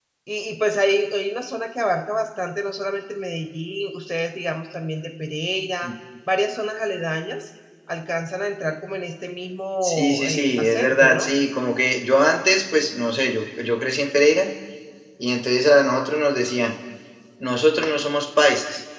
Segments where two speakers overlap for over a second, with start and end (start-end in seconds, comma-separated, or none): 9.8-11.3